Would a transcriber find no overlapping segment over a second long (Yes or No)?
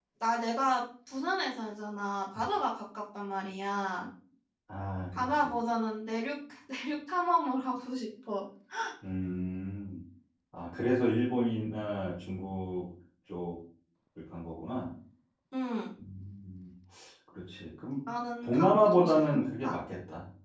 No